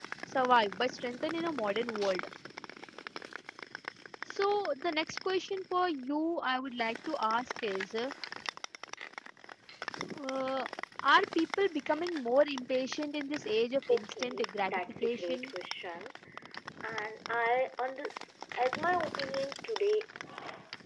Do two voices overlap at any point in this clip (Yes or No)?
Yes